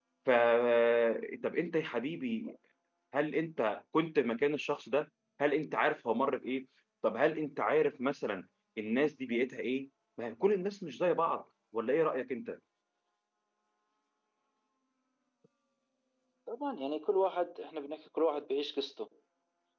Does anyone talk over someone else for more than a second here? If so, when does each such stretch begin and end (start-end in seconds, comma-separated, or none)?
none